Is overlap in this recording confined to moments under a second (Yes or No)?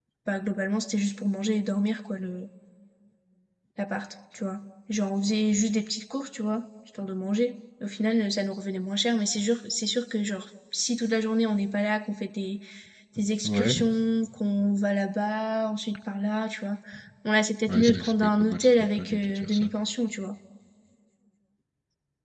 No